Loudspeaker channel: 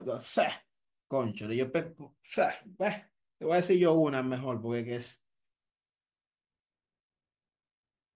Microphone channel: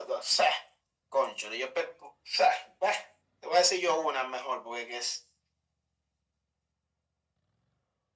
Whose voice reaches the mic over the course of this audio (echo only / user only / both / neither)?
echo only